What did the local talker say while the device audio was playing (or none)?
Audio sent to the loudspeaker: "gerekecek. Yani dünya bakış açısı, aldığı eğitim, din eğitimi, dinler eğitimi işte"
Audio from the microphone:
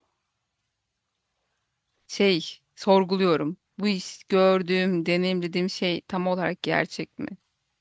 şey sorguluyorum. Bu iş gördüğüm, deneyimlediğim şey tam olarak gerçek mi?